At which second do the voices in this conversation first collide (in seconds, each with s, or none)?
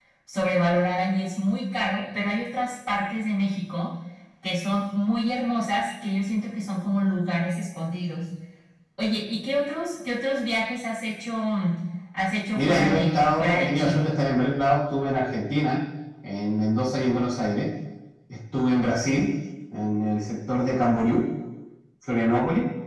12.6 s